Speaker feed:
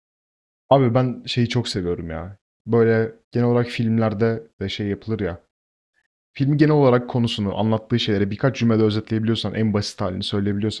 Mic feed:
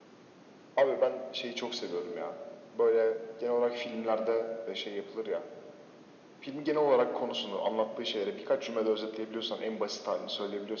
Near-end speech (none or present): none